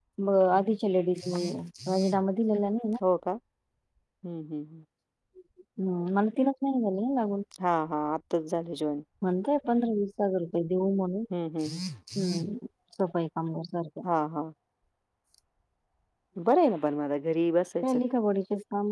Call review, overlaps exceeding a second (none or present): none